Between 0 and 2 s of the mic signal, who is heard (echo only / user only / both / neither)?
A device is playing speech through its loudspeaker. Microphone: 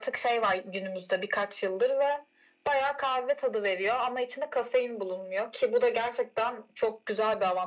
echo only